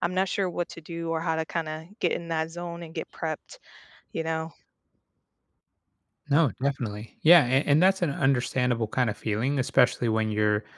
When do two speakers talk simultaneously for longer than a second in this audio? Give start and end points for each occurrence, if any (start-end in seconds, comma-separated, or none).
none